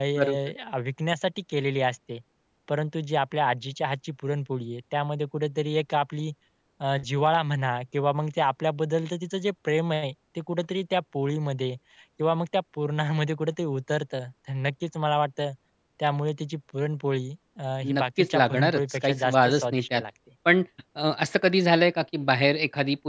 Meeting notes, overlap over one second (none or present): present